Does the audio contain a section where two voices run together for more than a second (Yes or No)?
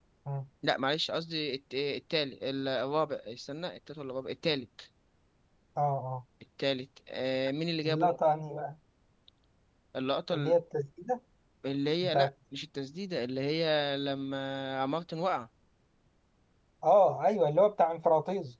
No